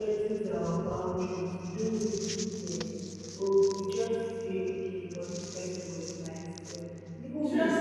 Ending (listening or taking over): taking over